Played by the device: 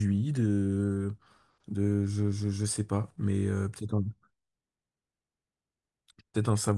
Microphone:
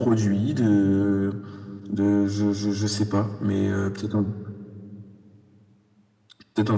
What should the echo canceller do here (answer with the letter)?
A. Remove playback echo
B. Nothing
A